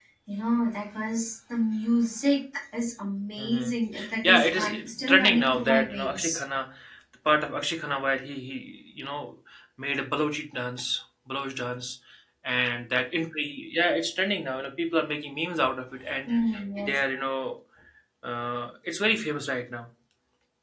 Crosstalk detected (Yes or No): Yes